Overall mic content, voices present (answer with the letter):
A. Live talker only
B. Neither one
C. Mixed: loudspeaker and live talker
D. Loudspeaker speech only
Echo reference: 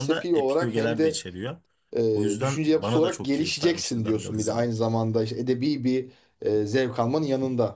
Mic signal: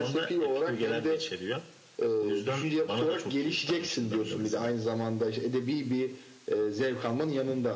D